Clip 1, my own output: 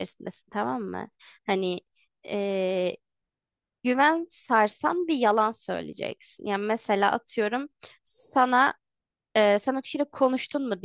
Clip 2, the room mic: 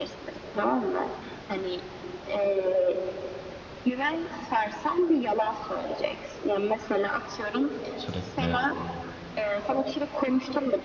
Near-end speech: present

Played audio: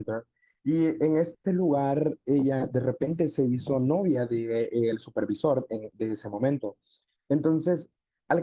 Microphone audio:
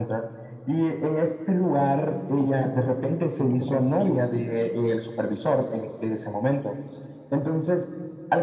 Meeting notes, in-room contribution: present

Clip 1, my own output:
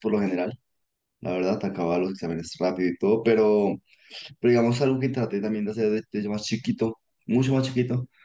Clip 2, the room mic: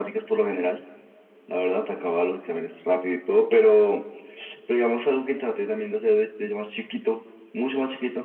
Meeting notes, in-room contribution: none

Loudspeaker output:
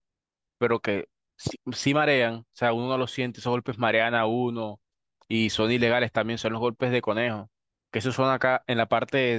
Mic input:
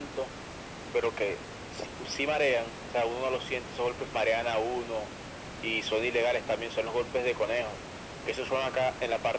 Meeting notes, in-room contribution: none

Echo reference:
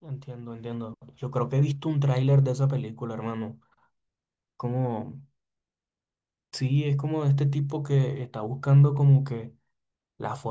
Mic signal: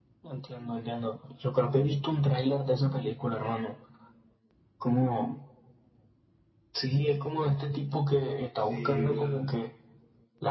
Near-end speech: present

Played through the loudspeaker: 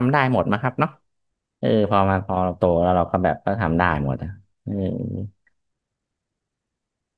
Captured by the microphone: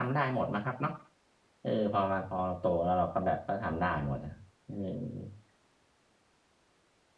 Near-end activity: none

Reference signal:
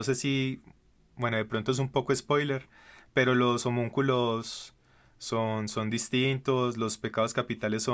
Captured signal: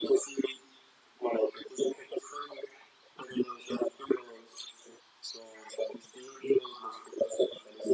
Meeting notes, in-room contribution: none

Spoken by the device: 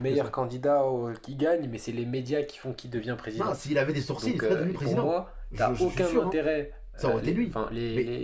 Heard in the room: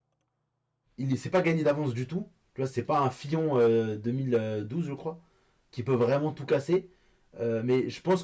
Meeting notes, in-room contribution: present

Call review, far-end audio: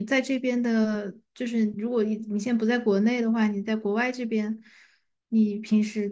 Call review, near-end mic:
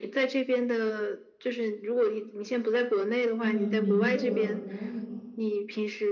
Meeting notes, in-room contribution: present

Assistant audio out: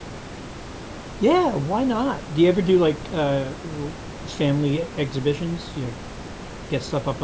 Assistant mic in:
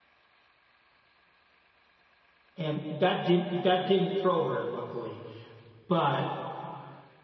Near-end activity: present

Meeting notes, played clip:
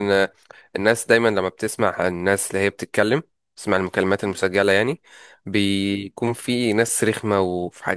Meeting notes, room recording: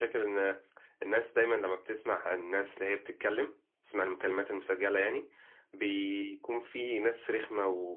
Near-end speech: none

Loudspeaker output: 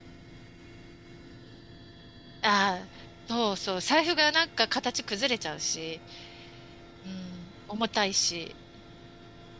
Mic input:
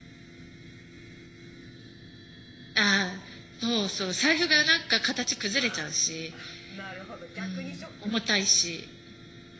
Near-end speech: present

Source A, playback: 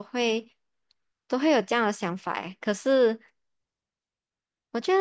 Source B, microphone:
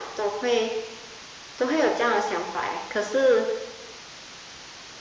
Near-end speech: none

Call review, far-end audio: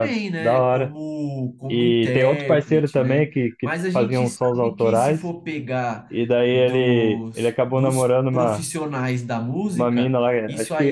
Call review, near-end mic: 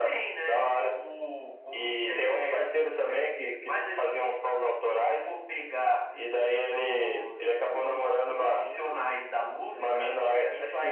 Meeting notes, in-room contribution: present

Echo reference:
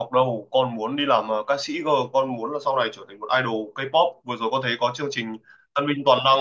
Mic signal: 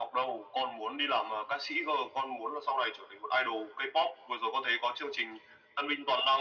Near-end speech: none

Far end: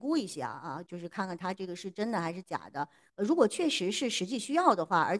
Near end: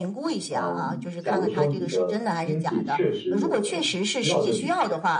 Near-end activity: present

